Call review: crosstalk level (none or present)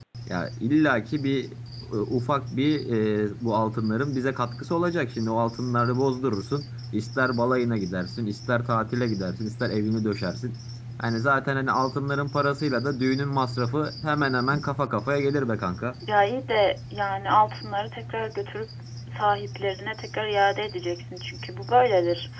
none